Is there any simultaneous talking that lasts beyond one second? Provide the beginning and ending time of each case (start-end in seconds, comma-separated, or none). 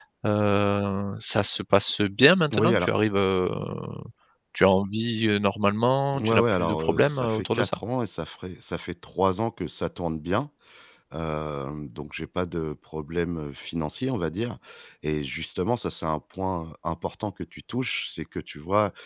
6.2-7.8